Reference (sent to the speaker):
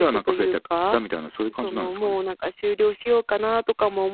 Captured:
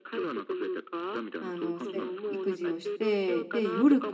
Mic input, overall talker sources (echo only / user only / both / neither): both